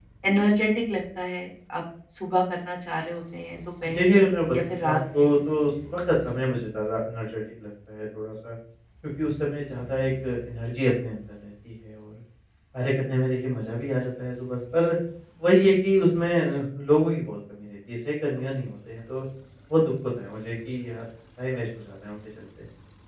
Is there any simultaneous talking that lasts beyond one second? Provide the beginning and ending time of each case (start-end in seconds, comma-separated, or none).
3.9-5.4